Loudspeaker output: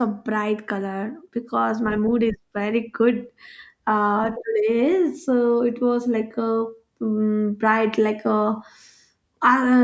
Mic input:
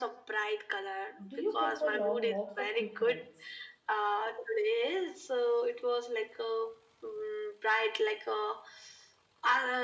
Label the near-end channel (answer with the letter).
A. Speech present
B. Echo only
A